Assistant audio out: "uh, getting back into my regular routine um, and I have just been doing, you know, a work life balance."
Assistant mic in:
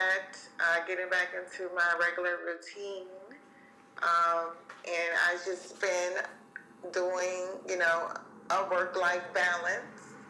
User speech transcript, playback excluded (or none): none